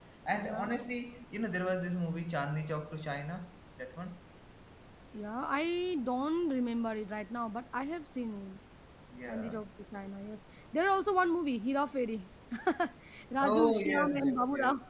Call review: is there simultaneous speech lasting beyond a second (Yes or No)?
Yes